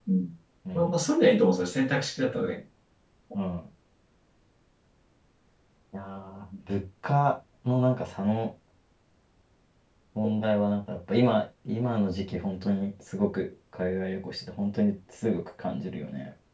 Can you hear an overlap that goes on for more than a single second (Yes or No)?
No